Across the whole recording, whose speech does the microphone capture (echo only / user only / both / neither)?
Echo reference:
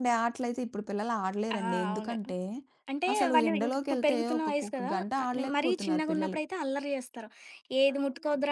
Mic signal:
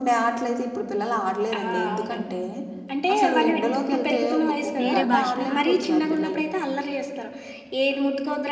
both